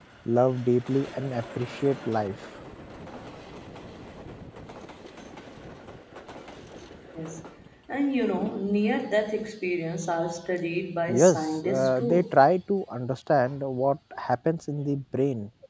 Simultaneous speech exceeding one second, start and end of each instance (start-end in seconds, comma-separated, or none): 11.1-12.3